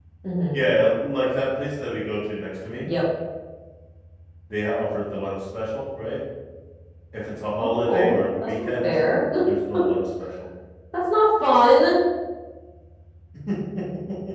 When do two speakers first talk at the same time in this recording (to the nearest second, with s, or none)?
8 s